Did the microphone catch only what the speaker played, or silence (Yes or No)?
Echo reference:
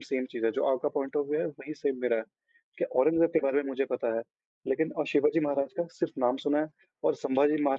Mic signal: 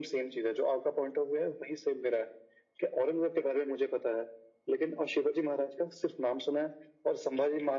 Yes